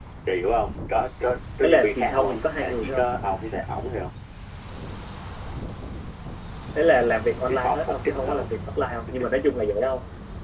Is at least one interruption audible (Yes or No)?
Yes